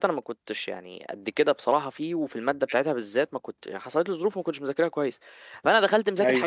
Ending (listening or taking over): listening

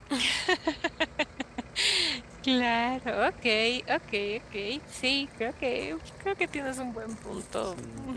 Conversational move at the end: taking over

